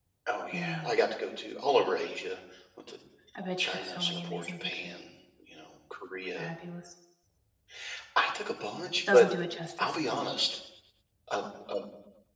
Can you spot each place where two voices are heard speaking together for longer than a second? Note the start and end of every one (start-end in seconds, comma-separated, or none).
3.6-4.9